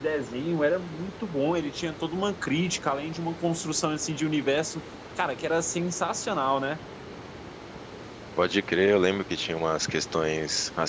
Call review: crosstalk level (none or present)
none